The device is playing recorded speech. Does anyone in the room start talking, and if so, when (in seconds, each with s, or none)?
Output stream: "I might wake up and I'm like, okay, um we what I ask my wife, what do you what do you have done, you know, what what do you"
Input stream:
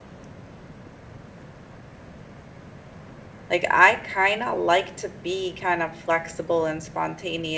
3.5 s